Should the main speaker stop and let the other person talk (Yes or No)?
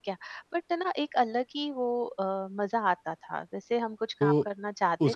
Yes